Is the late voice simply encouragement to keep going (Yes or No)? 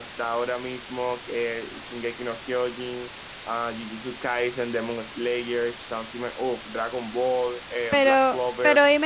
No